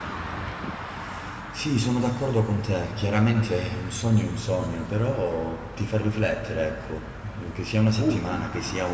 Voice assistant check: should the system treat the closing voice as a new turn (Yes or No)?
No